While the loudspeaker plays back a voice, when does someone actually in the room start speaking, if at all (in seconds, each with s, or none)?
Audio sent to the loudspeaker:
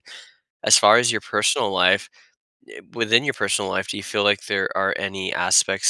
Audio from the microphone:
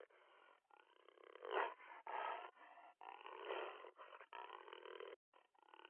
none